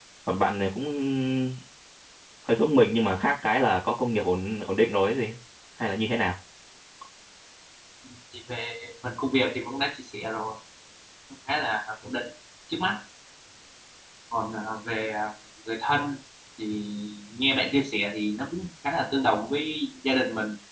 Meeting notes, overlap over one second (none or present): none